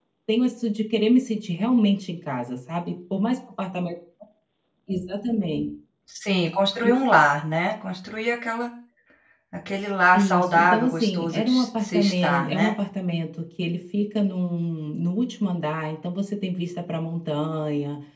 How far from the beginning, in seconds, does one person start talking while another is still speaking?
10 s

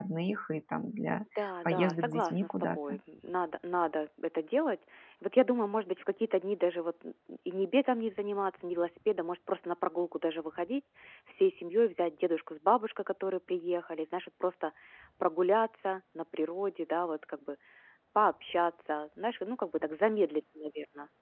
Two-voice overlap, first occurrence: 2 s

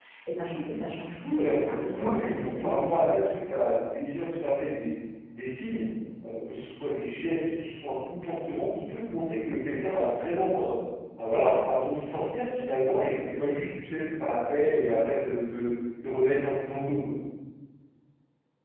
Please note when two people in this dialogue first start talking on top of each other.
1 s

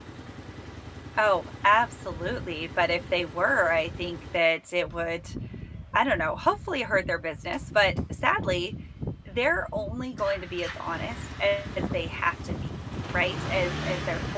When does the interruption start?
none

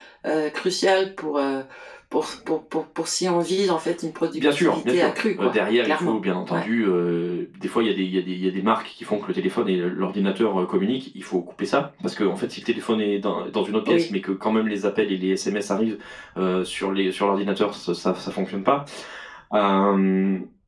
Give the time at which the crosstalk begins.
4 s

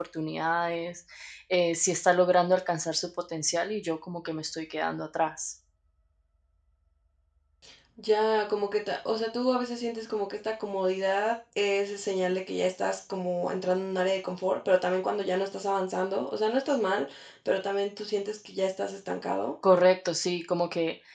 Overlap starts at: none

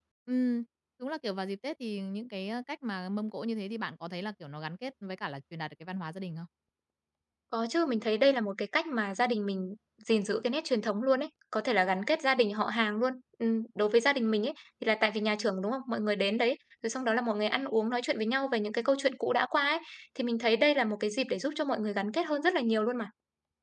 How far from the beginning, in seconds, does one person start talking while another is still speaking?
none

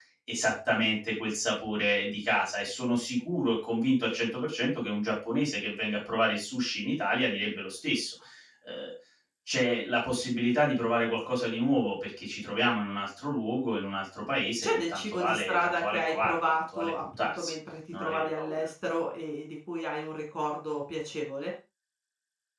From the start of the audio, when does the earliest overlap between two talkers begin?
15 s

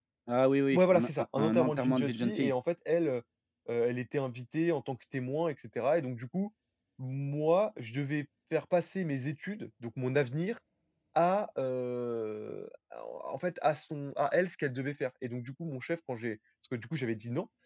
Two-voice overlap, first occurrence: 1 s

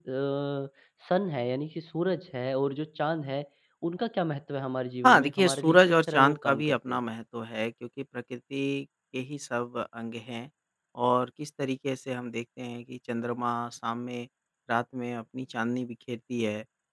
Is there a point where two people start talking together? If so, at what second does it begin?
5 s

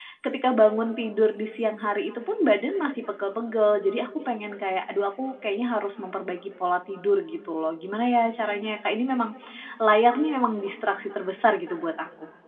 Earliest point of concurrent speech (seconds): none

